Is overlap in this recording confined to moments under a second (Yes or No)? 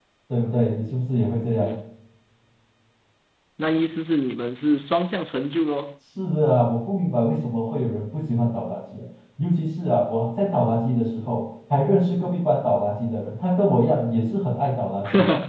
Yes